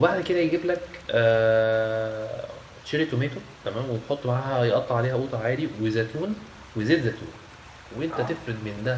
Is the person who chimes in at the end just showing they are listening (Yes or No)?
Yes